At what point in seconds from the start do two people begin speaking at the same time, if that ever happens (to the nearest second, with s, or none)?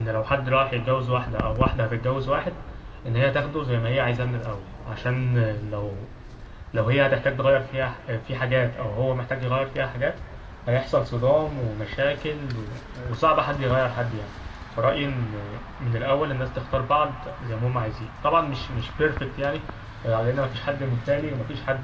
none